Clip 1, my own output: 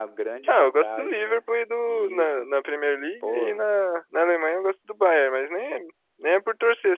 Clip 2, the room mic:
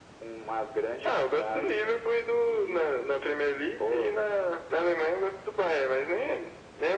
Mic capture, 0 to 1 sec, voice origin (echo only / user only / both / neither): echo only